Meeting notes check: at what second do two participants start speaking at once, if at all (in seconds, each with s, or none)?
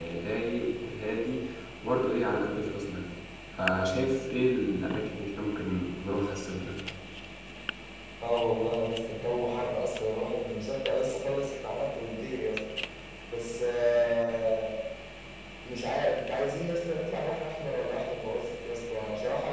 none